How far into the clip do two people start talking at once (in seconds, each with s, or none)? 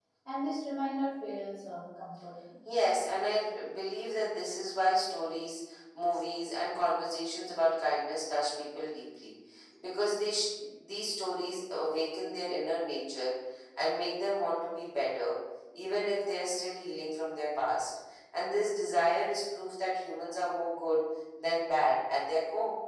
none